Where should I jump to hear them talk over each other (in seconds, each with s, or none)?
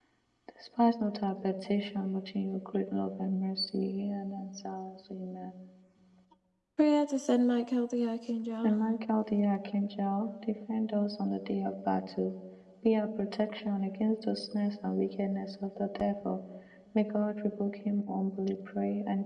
none